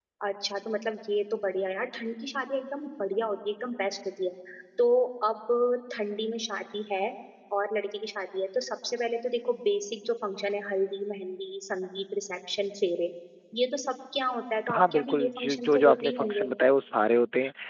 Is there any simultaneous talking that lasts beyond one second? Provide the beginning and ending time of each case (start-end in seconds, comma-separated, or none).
14.8-16.5